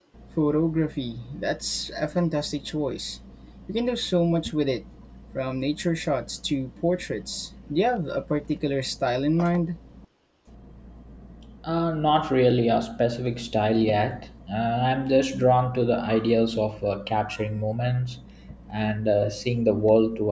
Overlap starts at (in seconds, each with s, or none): none